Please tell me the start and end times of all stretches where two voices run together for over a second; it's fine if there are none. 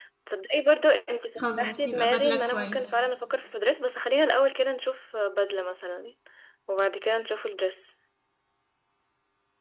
1.4-2.8

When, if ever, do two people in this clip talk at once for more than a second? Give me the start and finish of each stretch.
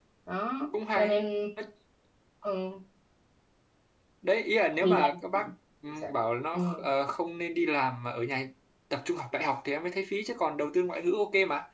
none

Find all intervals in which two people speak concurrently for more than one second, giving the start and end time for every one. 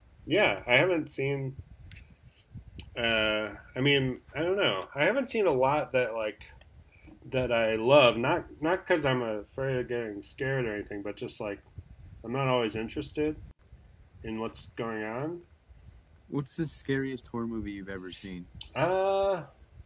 none

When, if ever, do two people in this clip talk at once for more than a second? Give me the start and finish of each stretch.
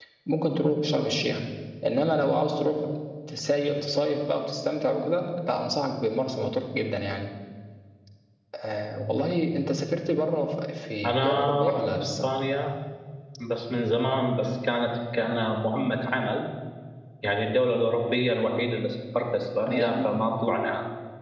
11.0-12.3

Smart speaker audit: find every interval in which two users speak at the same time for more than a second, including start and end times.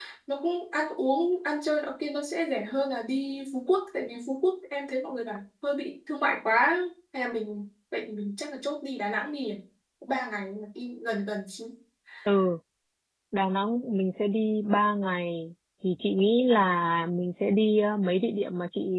none

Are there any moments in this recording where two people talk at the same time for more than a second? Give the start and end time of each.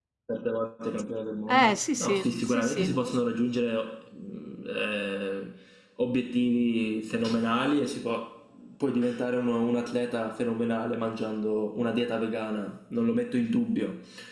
1.5-3.0

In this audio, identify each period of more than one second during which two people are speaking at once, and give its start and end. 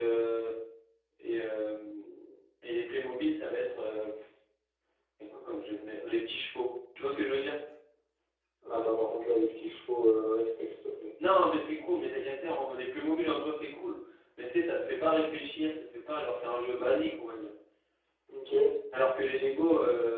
none

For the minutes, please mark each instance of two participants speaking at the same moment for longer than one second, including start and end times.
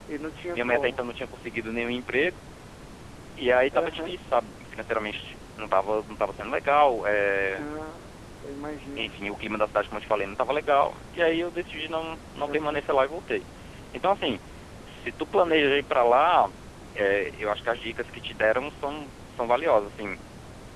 none

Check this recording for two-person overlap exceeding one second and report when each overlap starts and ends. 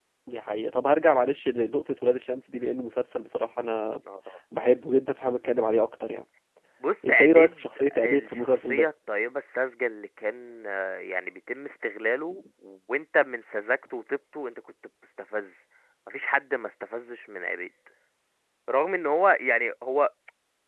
7.1-8.9

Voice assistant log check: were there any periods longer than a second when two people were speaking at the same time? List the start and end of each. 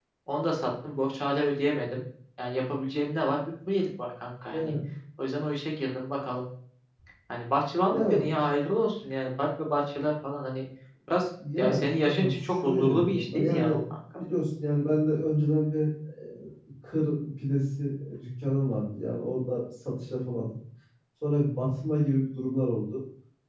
11.6-13.8

